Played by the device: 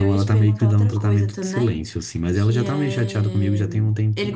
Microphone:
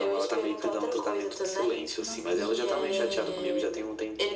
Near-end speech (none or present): present